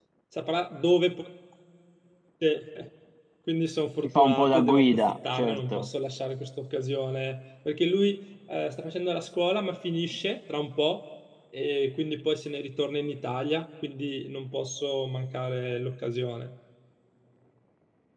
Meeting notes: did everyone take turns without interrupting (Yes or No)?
No